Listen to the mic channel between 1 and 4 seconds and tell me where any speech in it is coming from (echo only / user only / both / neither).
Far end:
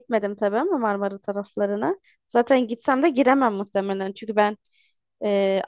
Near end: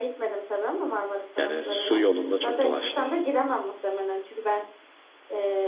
both